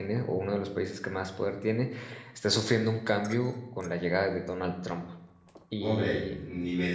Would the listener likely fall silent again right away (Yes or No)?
No